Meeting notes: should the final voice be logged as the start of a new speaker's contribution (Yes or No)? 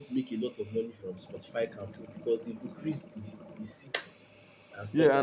Yes